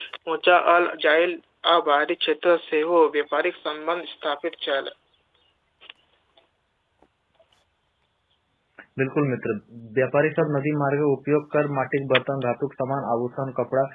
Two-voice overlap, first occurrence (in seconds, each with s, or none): none